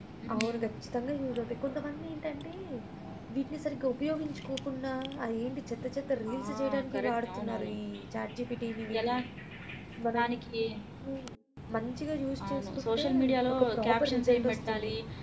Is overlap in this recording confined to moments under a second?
No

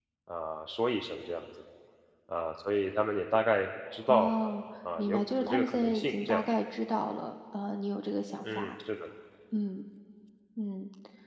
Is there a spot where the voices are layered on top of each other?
Yes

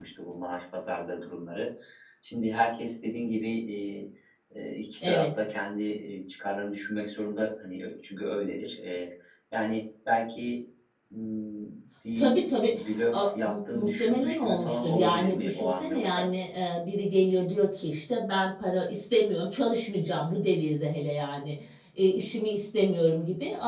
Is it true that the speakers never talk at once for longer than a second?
No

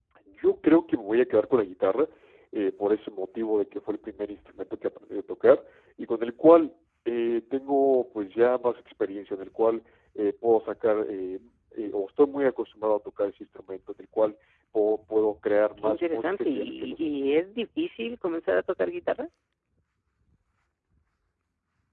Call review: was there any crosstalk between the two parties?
Yes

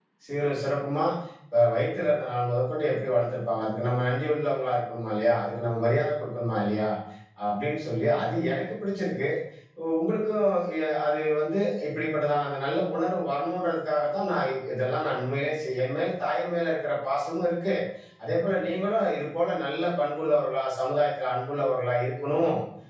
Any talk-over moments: No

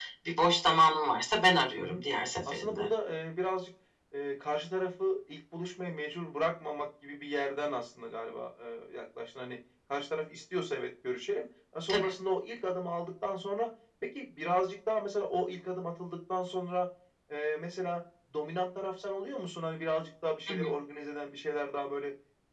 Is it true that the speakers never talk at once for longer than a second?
Yes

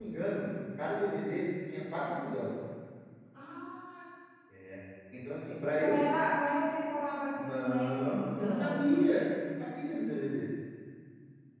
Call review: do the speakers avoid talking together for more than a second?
No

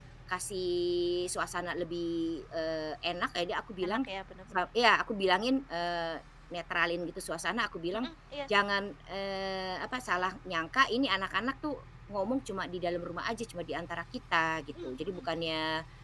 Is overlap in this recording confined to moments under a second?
Yes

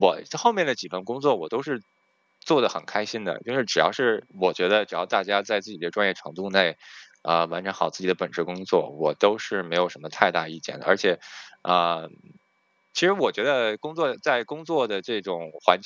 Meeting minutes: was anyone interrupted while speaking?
No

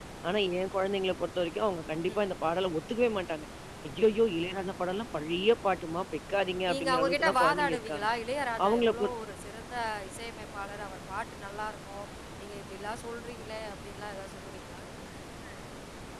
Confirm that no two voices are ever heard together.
No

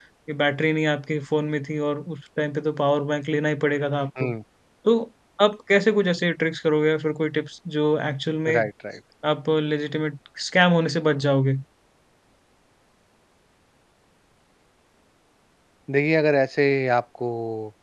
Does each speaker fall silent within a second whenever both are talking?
Yes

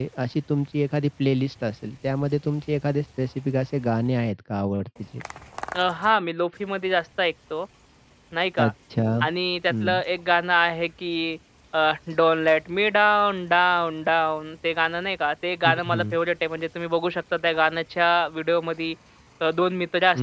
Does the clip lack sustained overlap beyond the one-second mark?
Yes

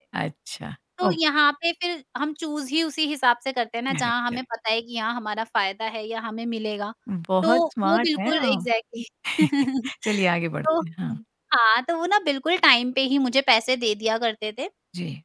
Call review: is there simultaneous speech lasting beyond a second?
Yes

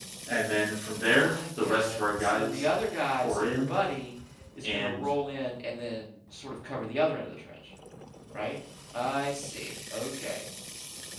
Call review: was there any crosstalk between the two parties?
Yes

